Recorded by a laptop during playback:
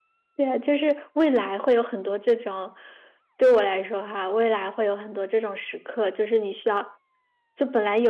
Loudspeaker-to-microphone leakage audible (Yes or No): No